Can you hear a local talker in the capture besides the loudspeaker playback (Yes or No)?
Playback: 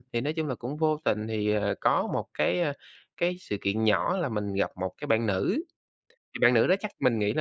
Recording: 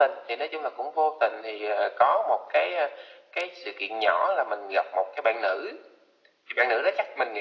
No